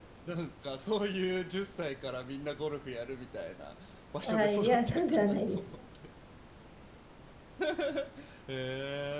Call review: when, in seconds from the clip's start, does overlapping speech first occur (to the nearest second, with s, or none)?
4 s